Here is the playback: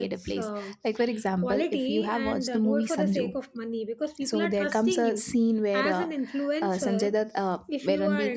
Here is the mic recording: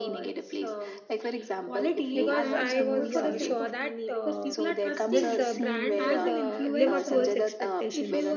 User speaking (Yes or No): Yes